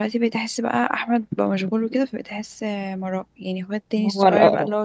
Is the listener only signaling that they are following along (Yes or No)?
Yes